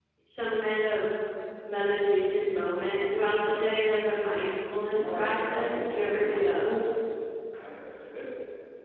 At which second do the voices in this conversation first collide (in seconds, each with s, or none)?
4.9 s